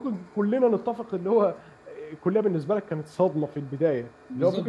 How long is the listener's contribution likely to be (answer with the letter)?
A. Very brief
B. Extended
A